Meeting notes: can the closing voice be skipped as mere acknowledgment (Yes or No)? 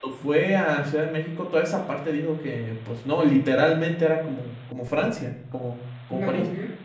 No